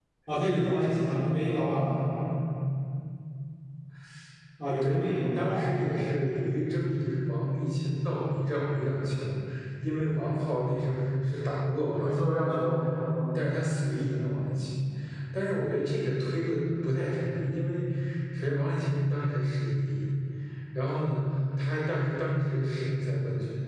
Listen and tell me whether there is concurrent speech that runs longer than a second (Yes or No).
Yes